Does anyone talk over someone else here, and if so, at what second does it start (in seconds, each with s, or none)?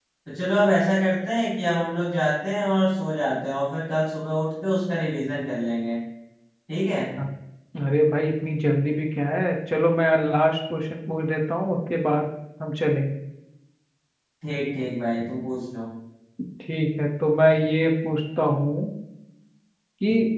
none